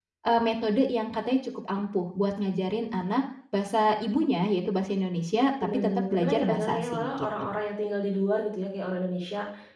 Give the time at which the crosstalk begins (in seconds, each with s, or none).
5.6 s